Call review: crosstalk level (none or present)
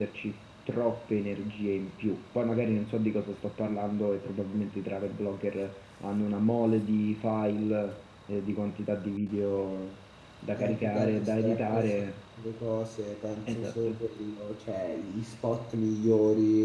present